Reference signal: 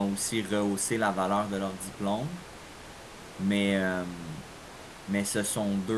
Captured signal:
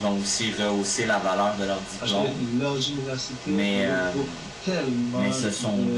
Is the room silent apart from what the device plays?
No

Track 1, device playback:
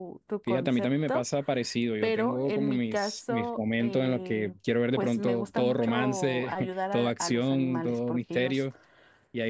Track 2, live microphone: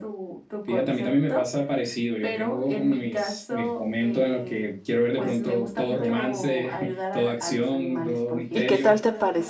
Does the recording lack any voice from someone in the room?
No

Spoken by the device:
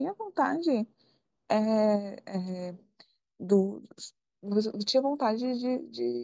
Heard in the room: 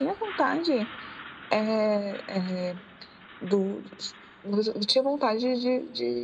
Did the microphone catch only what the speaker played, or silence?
Yes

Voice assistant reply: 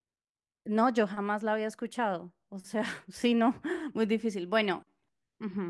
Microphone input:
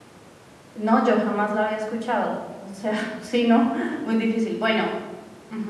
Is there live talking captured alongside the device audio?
No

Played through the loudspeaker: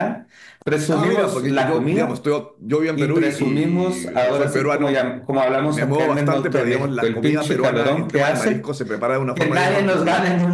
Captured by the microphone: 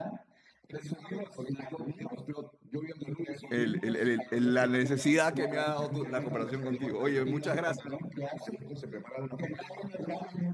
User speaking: Yes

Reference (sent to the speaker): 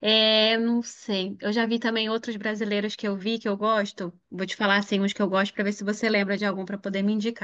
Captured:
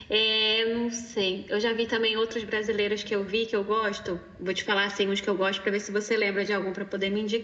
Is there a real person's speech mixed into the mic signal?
No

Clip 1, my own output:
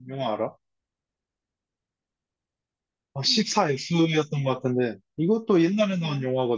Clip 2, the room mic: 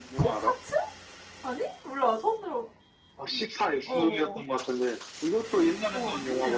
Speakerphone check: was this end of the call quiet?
No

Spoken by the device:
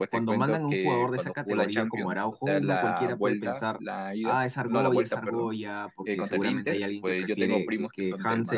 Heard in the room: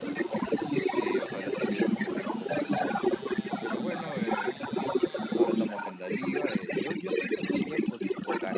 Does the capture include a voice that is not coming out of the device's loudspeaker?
Yes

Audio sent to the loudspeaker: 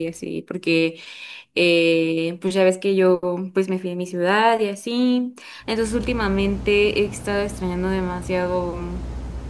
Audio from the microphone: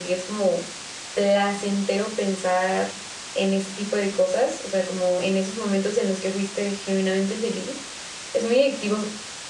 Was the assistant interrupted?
Yes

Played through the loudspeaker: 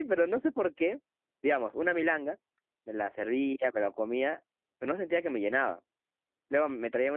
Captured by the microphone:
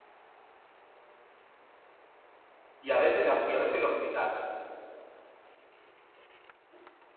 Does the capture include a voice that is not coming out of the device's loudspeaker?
Yes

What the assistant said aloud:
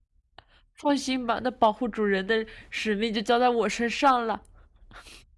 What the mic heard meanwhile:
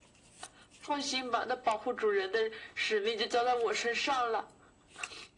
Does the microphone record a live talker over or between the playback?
No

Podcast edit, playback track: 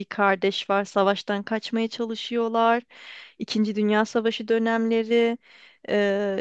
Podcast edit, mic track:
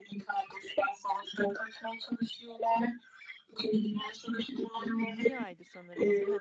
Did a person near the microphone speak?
Yes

